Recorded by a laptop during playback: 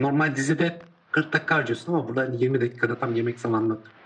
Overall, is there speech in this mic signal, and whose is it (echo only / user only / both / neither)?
echo only